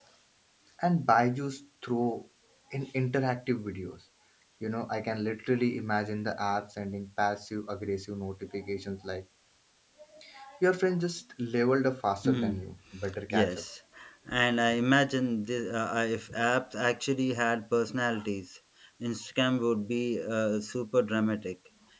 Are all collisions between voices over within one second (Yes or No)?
Yes